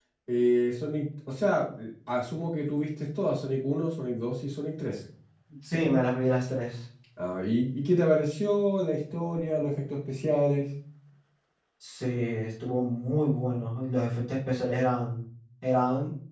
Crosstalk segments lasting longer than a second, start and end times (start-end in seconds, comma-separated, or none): none